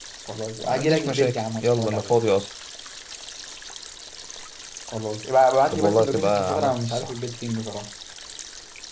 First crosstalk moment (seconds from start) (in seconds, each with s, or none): 0.6 s